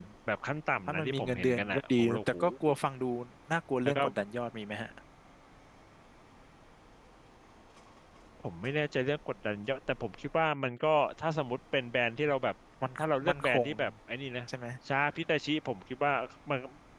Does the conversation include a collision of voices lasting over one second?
Yes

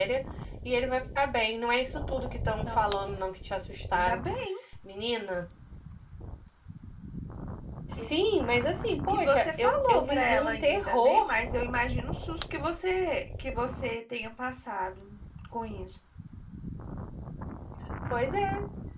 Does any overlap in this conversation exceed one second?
Yes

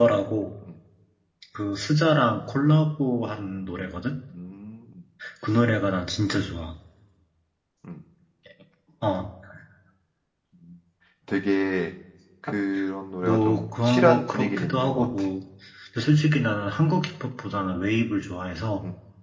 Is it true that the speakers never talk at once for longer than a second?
No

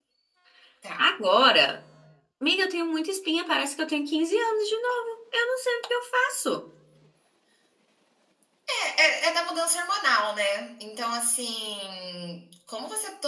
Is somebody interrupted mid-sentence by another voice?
No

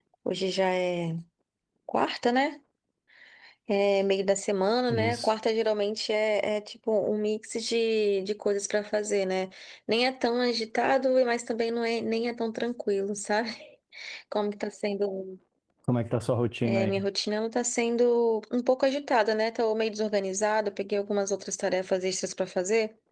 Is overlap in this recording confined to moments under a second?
Yes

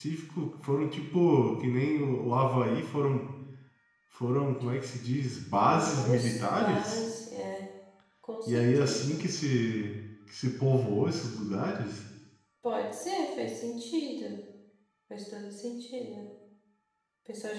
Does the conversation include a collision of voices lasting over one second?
Yes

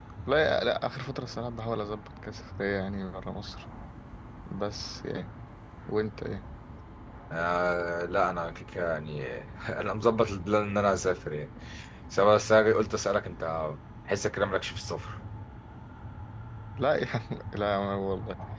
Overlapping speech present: No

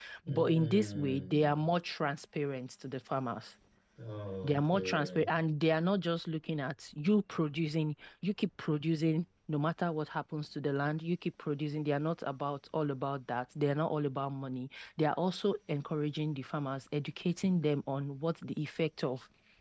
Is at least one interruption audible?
Yes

